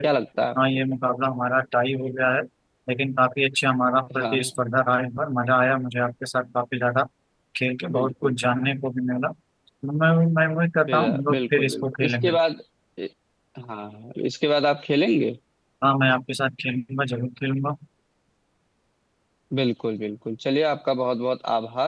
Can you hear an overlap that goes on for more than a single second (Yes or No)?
Yes